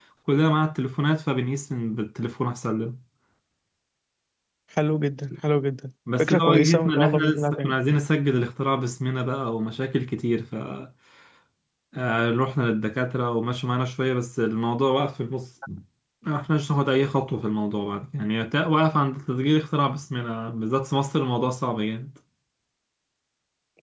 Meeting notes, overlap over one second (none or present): present